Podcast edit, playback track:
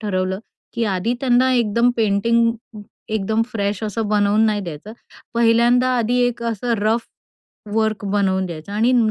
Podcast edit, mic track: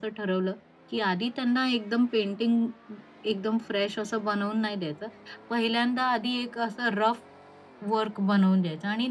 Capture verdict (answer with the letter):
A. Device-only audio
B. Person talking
A